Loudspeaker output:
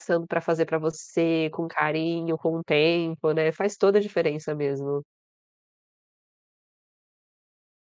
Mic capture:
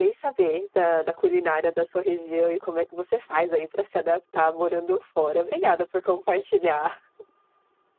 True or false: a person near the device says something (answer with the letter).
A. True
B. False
A